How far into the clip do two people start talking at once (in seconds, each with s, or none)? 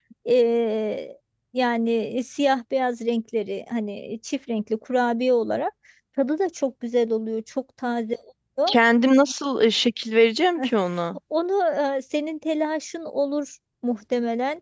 none